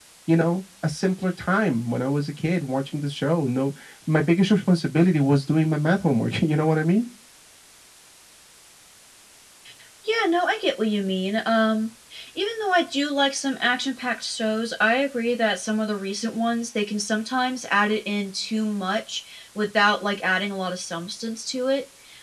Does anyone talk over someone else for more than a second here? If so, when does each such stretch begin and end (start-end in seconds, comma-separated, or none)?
none